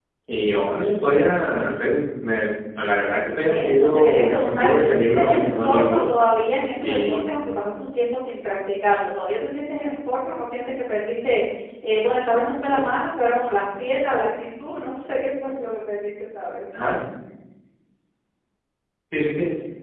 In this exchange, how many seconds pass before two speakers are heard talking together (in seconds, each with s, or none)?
3.5 s